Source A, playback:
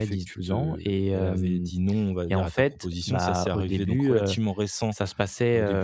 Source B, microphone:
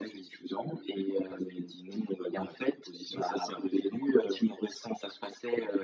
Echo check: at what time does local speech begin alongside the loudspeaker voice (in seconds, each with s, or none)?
none